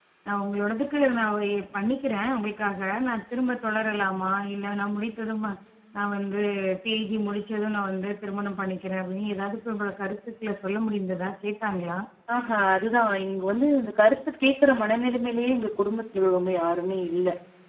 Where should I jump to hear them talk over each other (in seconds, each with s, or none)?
none